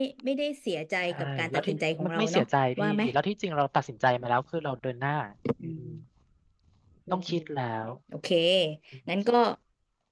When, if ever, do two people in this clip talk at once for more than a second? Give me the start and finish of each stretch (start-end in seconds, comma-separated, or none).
1.1-2.4